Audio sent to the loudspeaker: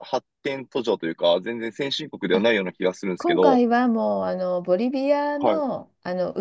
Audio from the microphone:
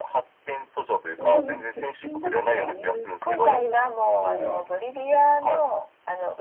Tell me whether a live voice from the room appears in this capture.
Yes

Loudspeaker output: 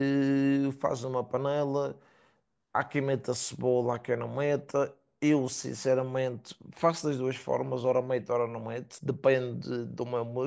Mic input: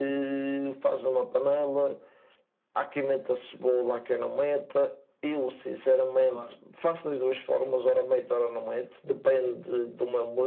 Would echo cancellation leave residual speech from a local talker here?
Yes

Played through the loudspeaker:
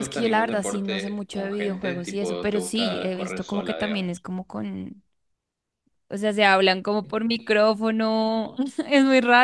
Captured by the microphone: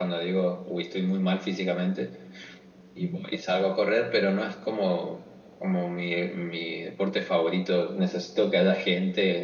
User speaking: Yes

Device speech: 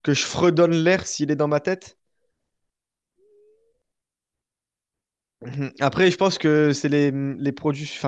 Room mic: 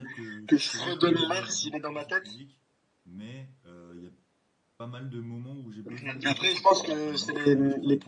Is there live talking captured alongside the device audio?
Yes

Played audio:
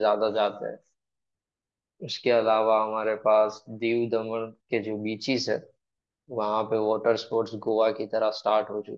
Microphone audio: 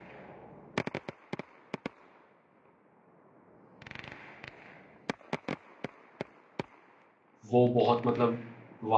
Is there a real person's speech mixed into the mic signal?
Yes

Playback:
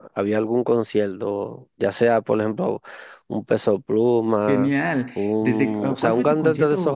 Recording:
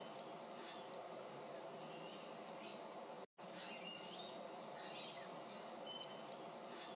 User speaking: No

